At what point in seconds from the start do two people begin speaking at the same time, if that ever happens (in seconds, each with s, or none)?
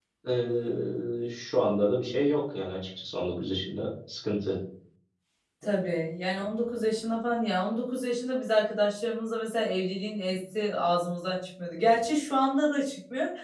none